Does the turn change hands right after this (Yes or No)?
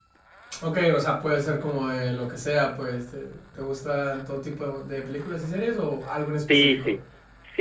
Yes